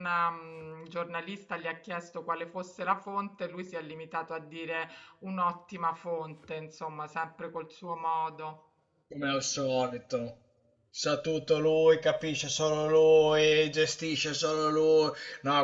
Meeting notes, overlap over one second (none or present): none